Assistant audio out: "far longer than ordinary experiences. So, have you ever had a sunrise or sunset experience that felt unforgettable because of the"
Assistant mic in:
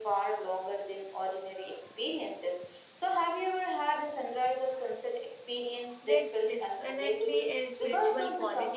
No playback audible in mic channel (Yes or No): No